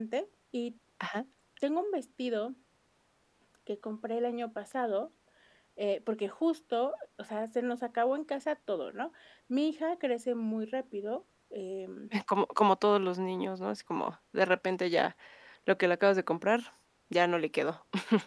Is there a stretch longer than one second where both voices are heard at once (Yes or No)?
No